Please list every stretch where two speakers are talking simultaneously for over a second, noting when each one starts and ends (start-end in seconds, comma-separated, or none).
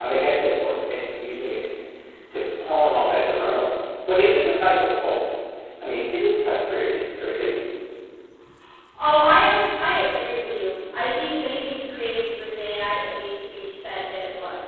none